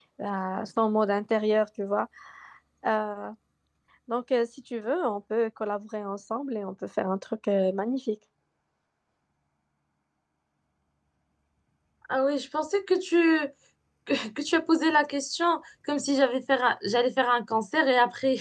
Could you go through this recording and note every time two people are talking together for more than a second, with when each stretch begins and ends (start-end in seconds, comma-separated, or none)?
none